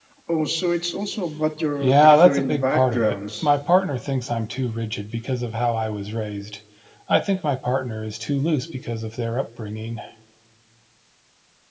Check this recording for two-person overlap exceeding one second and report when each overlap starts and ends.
1.8-3.5

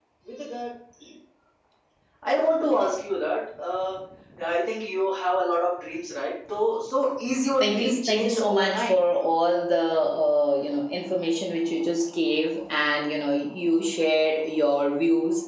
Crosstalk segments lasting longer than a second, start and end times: 7.6-9.0

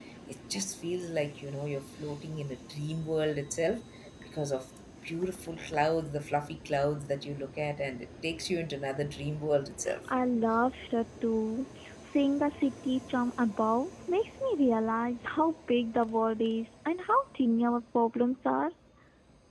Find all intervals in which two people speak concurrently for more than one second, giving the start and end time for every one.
none

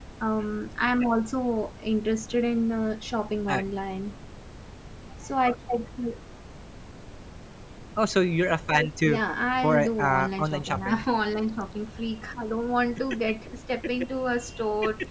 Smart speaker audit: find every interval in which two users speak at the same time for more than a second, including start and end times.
9.6-11.0

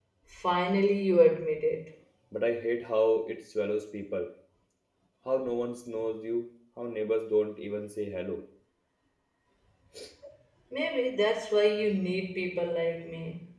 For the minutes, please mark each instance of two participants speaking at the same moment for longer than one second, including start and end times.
none

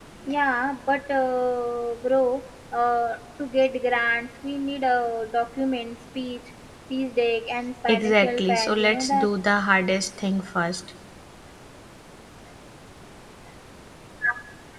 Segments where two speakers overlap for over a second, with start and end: 7.9-9.3

